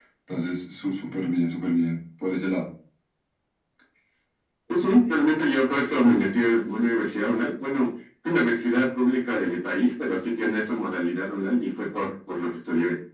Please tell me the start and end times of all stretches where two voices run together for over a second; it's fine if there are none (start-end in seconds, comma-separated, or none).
none